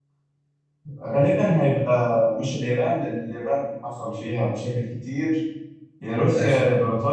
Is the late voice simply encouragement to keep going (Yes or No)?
Yes